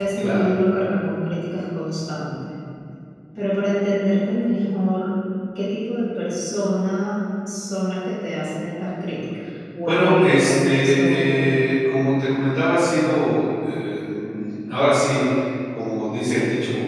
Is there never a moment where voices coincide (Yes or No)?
No